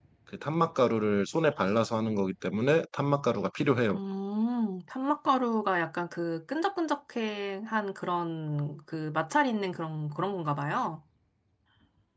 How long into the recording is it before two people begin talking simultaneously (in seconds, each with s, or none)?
none